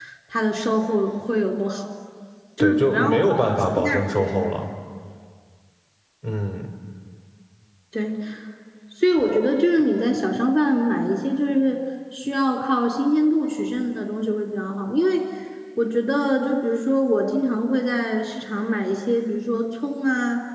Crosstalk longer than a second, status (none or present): present